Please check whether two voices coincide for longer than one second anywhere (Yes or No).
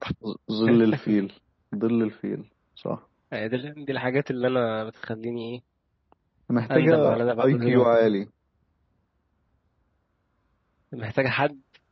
Yes